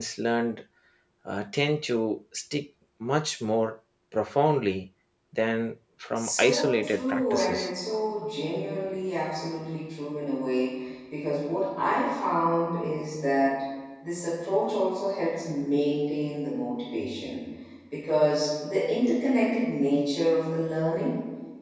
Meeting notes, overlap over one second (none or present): present